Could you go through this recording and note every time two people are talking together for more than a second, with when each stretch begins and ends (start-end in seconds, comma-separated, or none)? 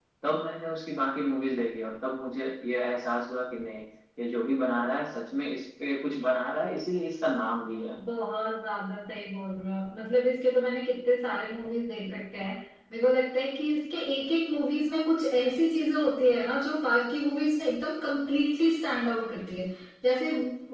none